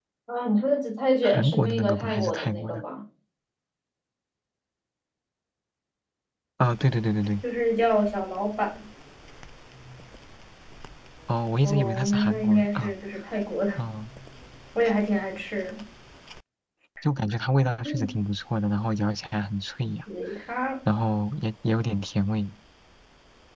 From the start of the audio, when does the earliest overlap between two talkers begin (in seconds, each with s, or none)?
1.2 s